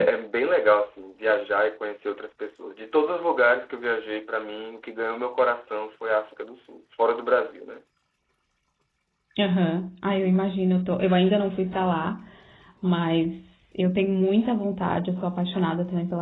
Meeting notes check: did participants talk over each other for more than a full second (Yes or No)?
No